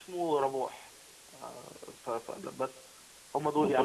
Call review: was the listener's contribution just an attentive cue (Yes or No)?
No